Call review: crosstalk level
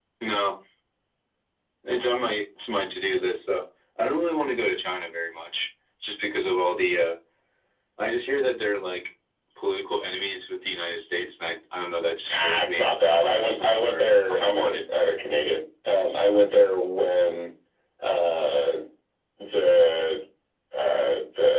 present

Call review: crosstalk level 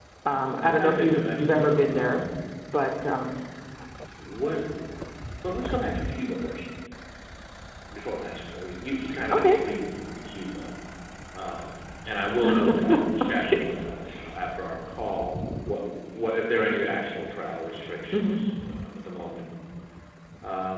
present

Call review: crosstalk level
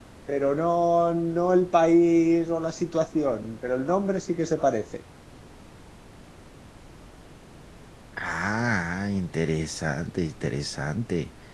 none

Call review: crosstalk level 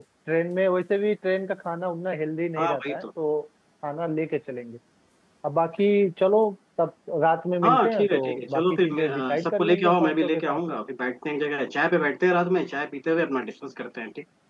present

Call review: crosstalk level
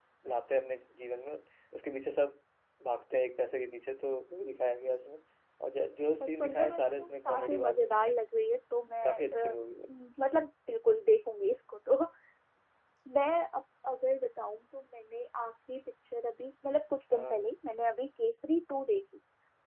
present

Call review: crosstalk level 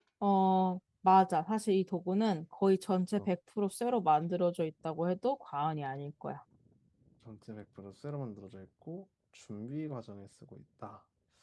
none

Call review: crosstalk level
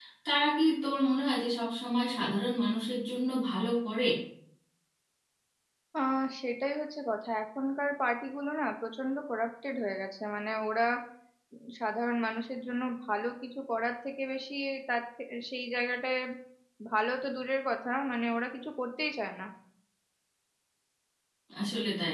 none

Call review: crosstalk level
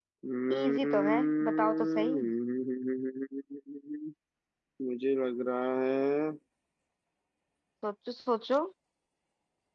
present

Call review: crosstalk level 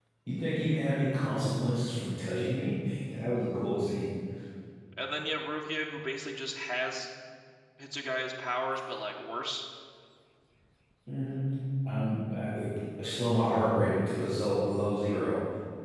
none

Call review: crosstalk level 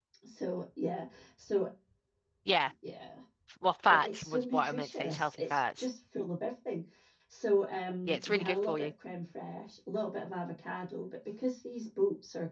present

